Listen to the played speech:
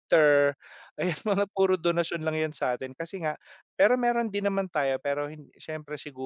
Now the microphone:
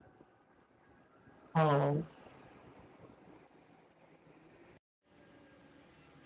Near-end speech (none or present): present